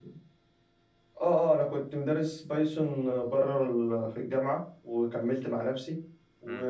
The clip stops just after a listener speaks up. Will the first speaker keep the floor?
Yes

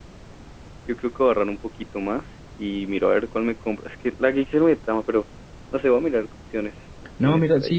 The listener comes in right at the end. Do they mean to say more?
Yes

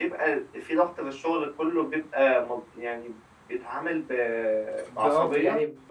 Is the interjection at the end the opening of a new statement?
Yes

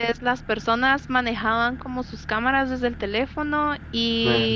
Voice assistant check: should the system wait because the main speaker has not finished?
Yes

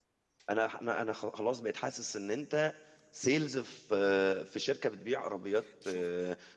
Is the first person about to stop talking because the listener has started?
No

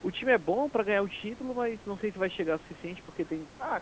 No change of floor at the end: No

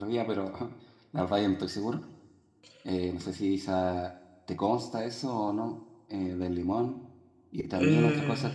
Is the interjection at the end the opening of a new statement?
No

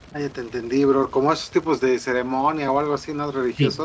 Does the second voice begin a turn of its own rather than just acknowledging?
Yes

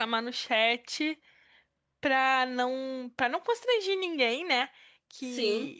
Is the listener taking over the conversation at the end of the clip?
No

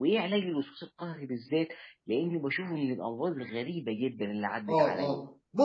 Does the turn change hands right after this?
Yes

